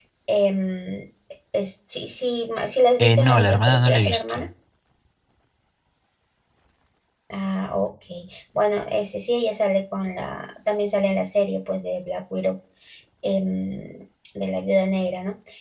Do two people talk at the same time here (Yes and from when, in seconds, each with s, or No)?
Yes, from 3.0 s